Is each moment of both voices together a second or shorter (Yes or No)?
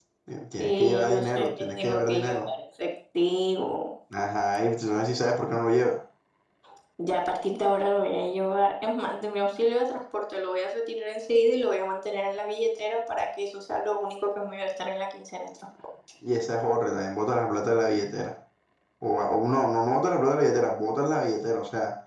No